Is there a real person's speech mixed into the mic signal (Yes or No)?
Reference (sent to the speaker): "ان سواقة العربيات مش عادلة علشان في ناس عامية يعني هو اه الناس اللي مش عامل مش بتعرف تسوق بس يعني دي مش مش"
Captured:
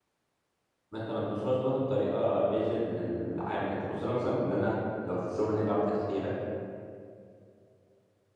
Yes